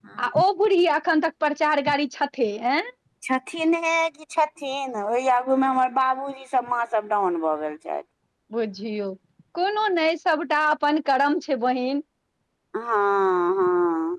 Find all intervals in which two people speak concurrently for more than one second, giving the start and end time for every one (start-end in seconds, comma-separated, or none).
none